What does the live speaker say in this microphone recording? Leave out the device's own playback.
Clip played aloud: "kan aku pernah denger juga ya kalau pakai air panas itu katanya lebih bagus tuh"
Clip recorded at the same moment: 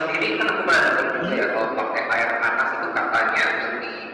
Iya.

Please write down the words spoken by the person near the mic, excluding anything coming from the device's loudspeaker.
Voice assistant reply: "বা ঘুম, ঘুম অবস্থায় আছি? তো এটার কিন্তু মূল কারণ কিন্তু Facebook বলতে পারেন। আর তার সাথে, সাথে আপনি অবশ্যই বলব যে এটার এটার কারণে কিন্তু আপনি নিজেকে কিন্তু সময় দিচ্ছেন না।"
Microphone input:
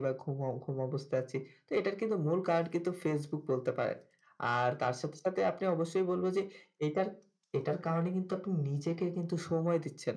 none

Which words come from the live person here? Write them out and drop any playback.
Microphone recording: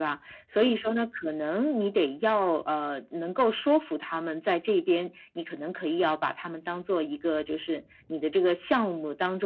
none

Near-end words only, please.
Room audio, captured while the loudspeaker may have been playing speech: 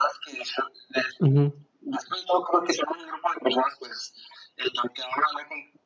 Ujú.

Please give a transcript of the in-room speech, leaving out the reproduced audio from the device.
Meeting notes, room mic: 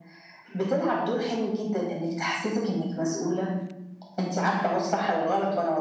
none

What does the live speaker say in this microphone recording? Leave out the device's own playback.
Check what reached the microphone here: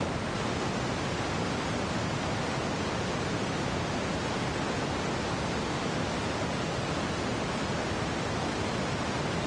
none

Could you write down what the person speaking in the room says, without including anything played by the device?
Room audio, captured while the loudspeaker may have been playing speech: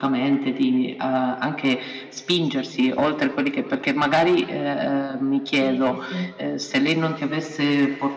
sì, sì, sì.

